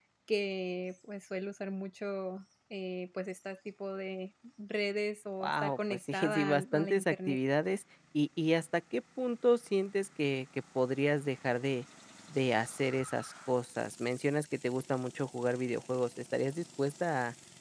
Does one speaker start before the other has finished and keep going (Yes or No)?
Yes